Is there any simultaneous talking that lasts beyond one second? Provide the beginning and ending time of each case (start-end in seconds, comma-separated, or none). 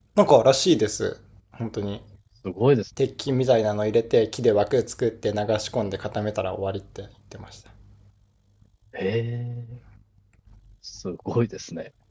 none